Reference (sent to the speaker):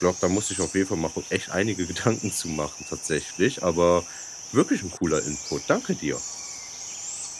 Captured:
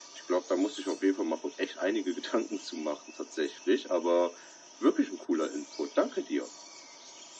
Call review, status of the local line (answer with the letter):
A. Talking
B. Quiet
B